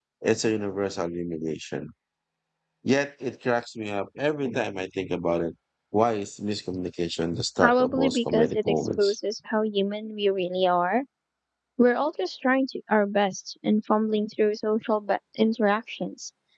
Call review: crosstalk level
present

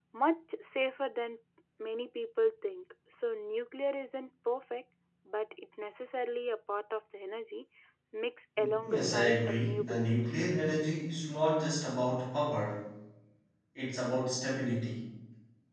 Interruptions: present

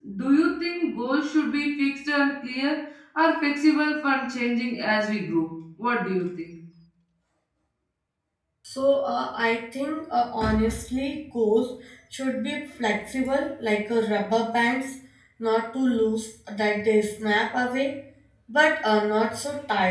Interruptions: none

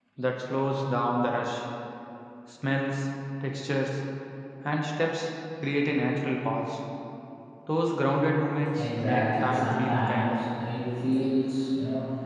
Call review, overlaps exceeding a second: present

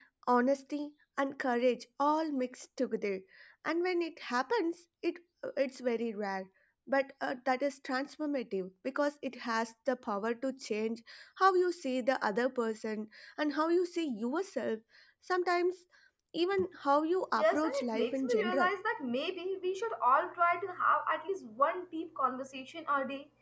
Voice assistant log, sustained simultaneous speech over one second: present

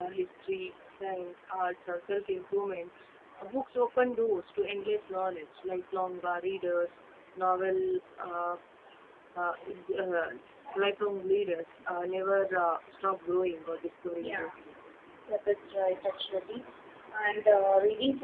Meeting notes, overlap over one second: none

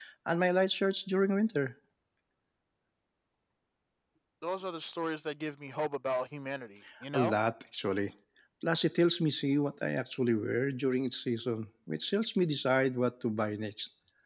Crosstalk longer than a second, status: none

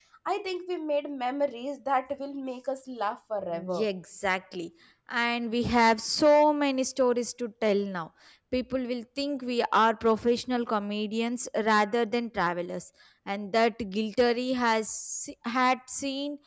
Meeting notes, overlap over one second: none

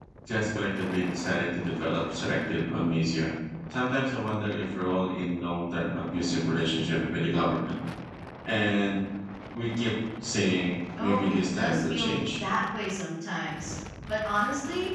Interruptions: present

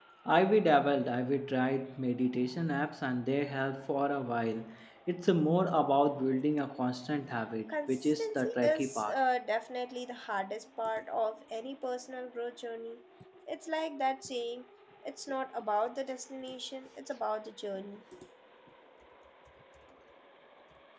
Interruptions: present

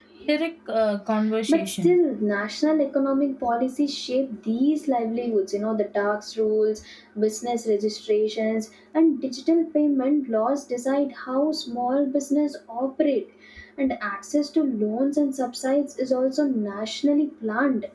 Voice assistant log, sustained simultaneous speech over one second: none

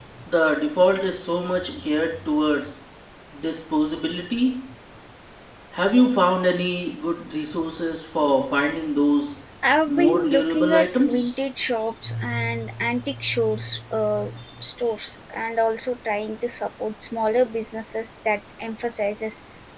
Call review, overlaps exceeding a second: present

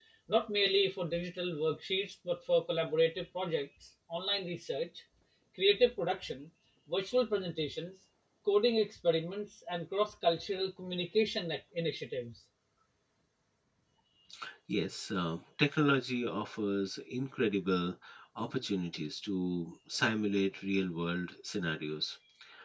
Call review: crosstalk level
none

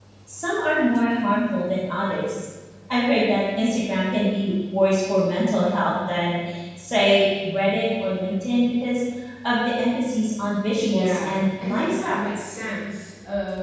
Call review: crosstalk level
present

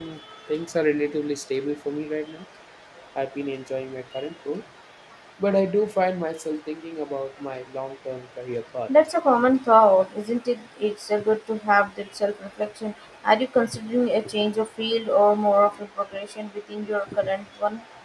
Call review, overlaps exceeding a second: none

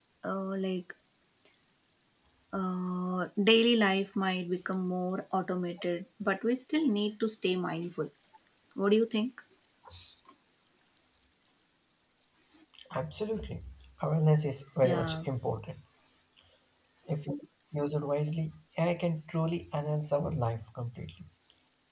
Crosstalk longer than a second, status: none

